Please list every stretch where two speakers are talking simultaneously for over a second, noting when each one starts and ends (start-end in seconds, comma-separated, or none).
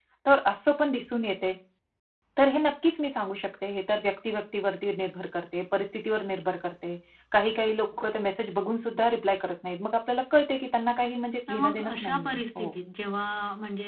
11.5-12.8